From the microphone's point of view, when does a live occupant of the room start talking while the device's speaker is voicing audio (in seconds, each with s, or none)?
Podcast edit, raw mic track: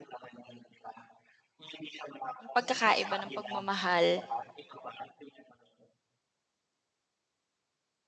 2.5 s